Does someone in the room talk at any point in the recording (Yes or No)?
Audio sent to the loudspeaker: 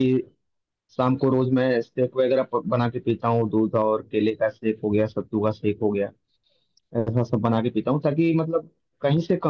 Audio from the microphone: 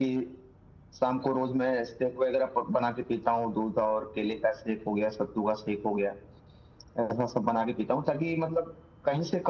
No